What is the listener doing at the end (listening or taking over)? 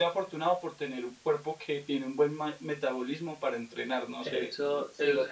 taking over